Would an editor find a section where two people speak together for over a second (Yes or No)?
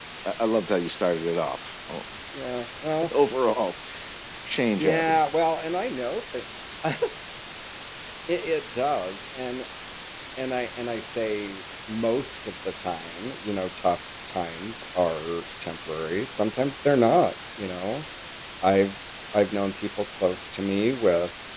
No